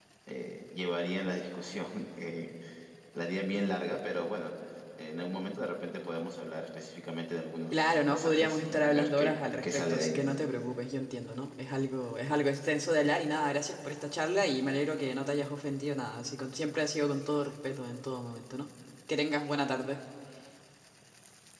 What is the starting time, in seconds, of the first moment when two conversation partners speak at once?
7.7 s

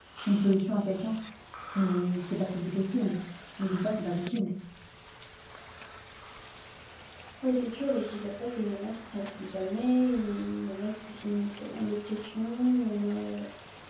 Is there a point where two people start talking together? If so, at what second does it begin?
none

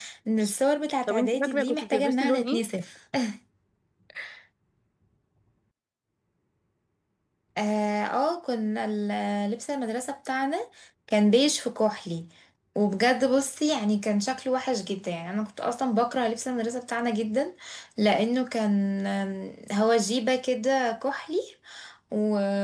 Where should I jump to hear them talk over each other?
1.1 s

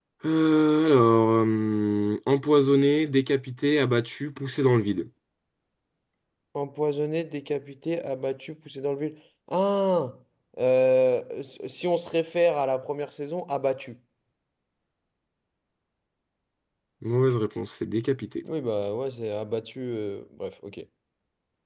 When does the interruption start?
none

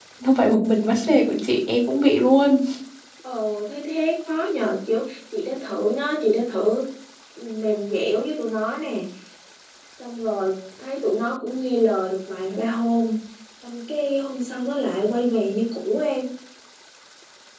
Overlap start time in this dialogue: none

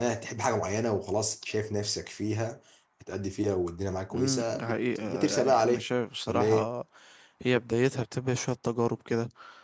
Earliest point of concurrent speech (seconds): 4.1 s

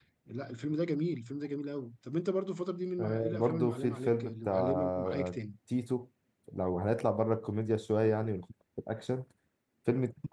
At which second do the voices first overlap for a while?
3.0 s

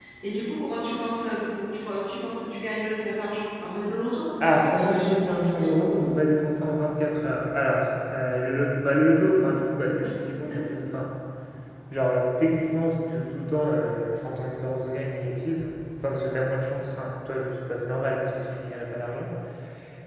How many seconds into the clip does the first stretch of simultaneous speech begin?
4.4 s

